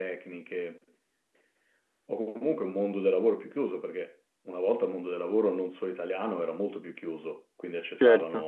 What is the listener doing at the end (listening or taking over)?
listening